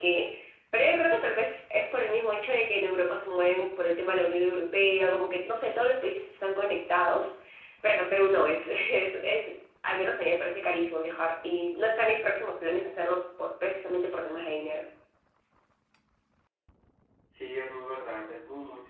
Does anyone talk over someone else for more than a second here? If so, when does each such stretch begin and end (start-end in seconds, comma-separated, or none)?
none